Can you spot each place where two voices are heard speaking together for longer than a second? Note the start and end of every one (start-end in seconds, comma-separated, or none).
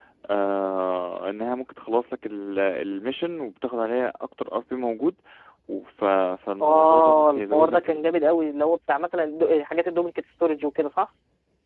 6.6-8.1